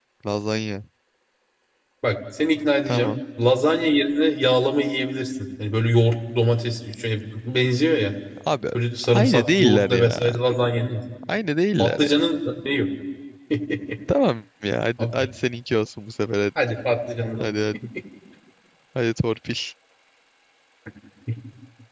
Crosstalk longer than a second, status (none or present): present